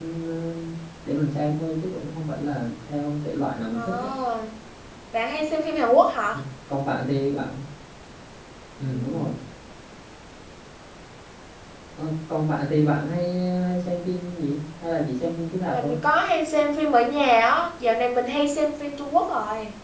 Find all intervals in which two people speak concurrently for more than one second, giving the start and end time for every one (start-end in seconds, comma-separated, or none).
none